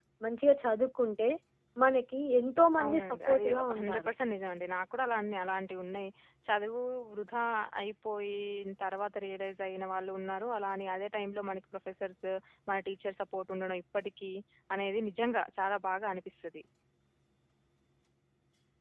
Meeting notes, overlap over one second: present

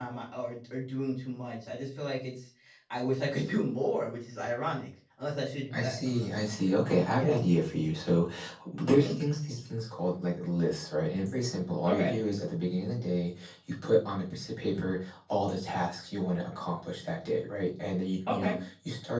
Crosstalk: present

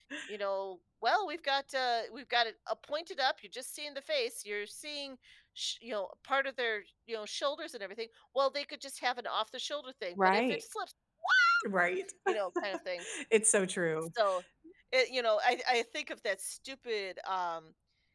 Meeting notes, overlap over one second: none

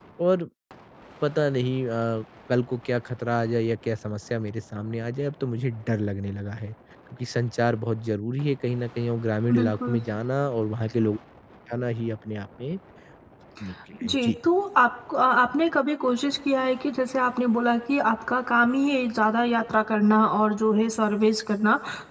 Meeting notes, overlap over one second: none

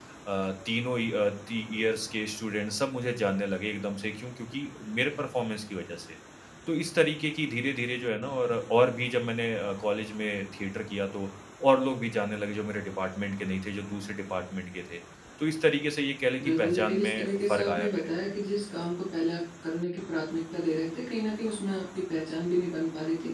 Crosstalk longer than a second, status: present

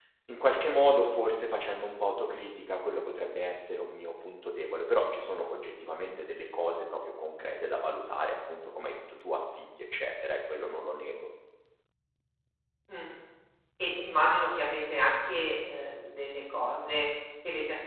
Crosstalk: none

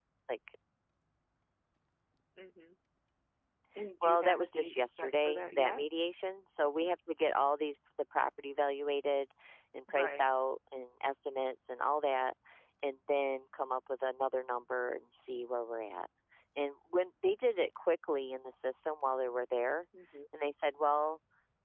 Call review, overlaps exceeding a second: present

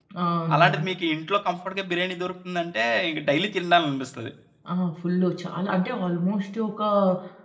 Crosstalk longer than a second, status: none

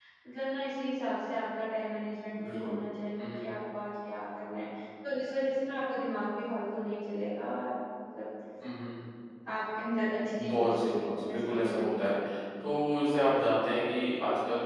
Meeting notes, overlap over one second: present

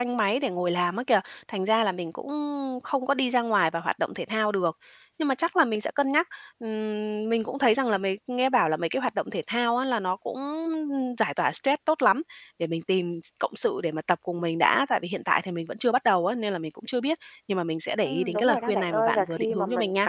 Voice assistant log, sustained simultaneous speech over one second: present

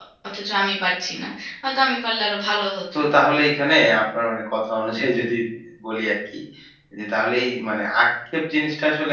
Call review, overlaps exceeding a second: none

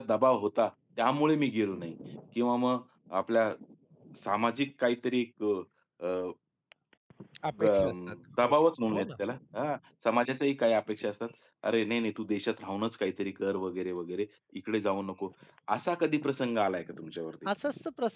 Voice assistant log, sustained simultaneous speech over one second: none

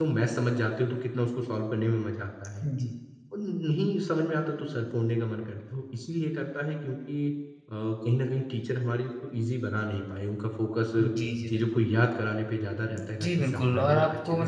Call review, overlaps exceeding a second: present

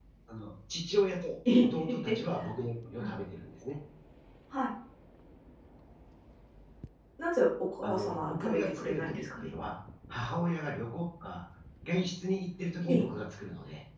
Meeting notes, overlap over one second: present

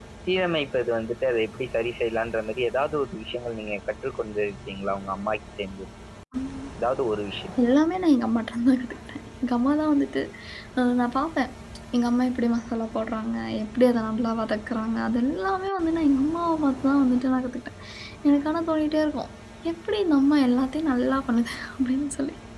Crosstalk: none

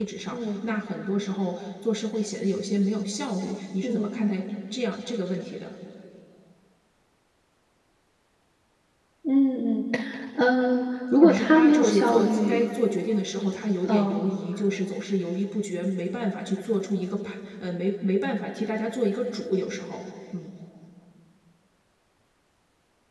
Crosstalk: present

